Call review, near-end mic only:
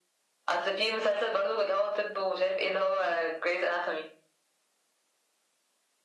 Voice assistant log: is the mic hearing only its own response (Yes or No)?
Yes